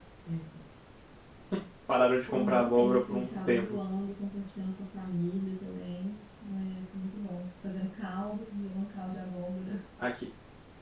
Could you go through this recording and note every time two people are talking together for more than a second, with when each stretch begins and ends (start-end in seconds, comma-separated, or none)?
2.3-3.8